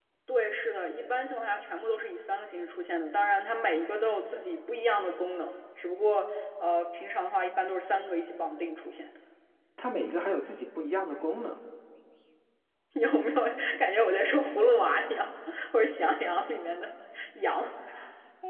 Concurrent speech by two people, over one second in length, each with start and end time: none

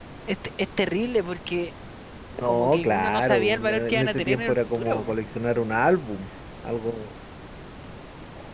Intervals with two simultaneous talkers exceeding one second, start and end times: 2.4-5.1

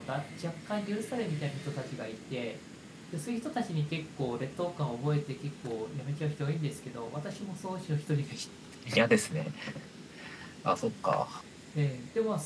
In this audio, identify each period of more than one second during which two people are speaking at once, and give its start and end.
none

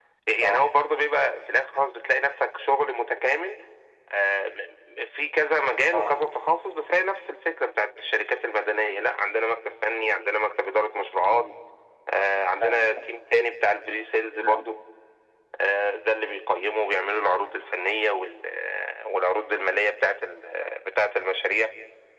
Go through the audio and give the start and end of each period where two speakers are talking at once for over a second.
none

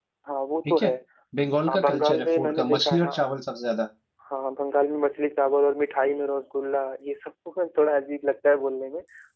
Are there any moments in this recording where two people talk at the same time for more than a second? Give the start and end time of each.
1.7-3.2

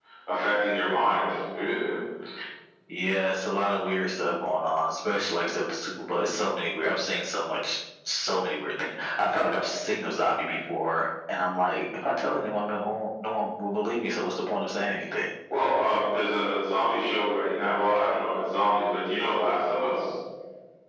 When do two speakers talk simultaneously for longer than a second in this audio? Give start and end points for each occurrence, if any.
none

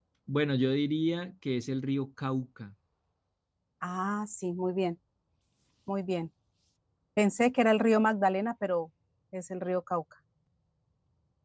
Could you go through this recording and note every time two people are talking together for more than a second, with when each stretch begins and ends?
none

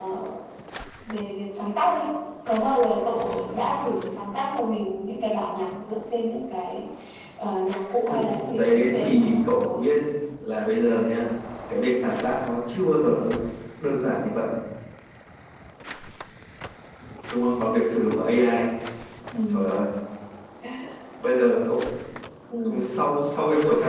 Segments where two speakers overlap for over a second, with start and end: 8.6-9.9

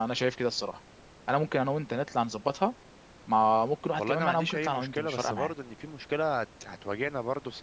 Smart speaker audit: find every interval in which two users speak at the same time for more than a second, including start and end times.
4.0-5.5

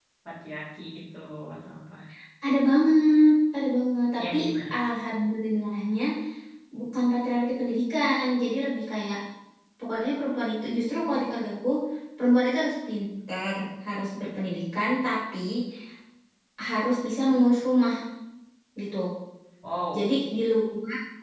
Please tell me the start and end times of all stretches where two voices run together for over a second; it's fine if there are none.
none

